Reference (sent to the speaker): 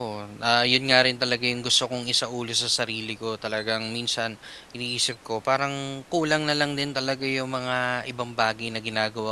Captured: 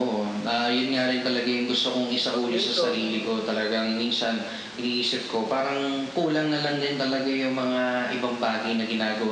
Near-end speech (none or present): present